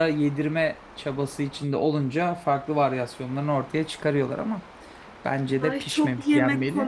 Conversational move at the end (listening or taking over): taking over